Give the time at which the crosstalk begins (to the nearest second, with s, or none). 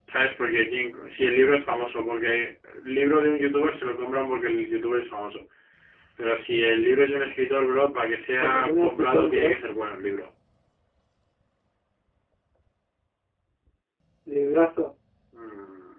8 s